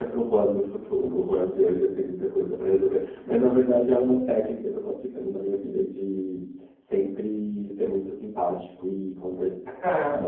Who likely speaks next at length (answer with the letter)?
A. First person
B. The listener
A